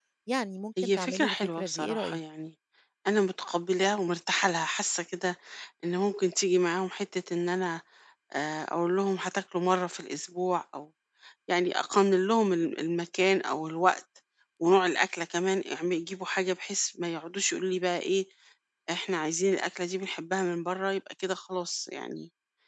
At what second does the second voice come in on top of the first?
0.8 s

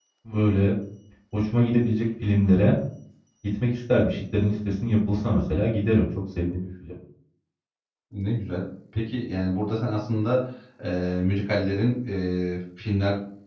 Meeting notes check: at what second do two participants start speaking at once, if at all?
none

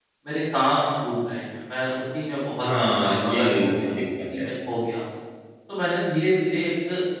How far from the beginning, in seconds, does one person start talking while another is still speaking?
2.6 s

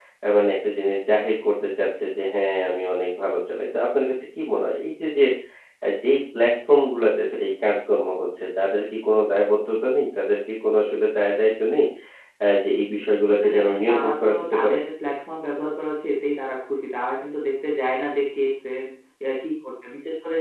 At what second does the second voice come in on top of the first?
13.3 s

